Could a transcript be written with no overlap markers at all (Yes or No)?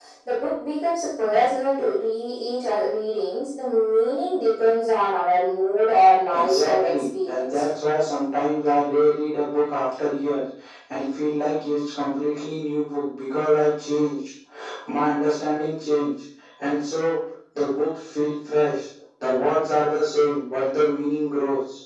No